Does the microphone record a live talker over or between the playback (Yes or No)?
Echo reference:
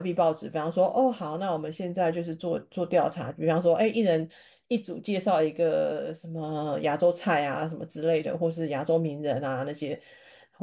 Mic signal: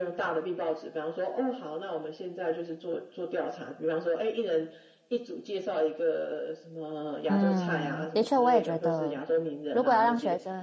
Yes